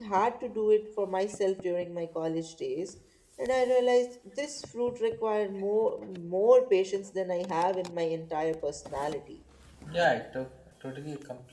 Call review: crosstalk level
none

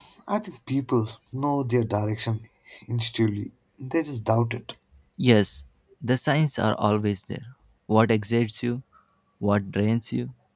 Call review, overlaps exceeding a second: none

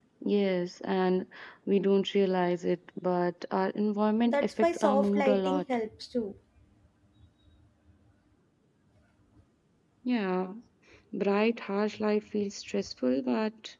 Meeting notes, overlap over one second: present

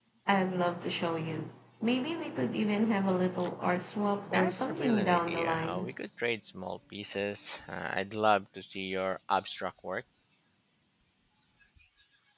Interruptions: present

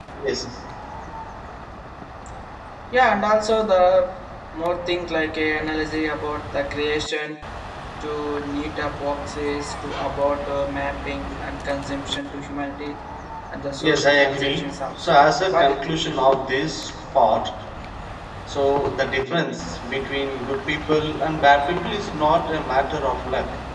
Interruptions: present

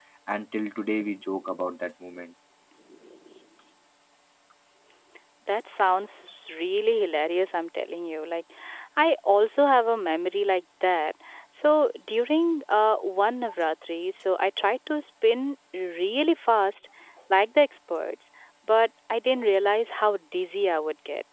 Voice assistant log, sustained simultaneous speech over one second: none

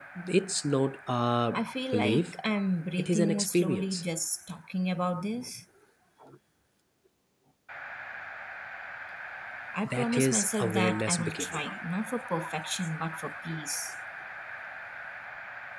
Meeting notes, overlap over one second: present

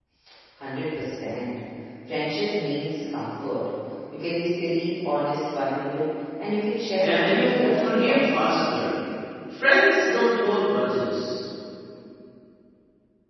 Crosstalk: present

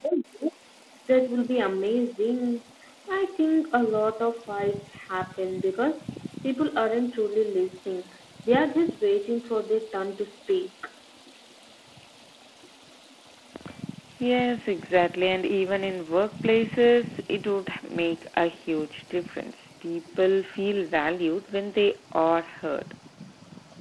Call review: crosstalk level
none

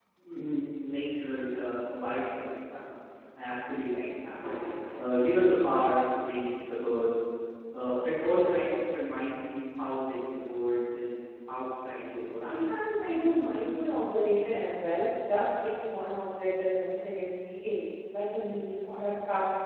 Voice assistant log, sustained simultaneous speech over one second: none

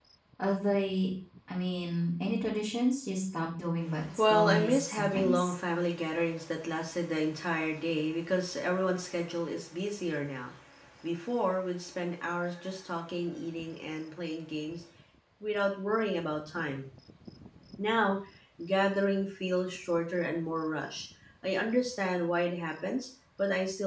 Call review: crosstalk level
present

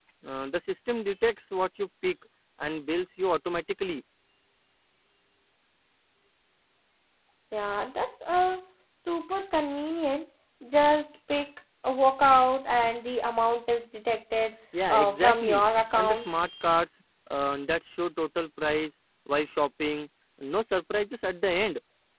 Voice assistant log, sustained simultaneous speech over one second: present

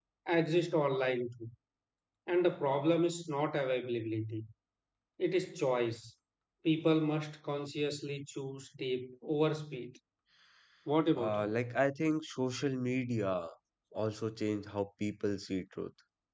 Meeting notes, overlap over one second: none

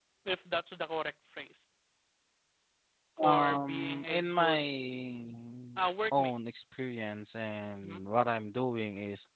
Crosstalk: present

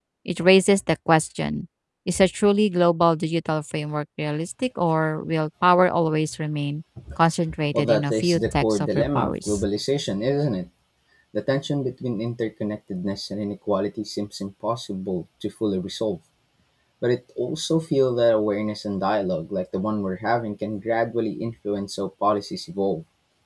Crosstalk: present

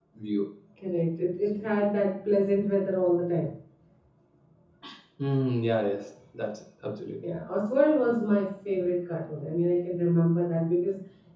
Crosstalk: none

